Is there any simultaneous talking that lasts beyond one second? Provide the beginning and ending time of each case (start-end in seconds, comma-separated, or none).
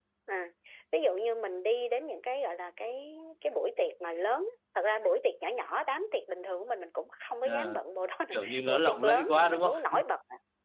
8.3-9.9